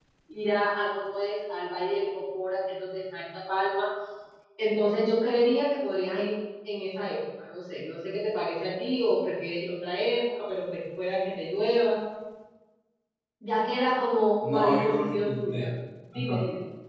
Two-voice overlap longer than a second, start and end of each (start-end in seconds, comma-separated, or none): 14.4-15.6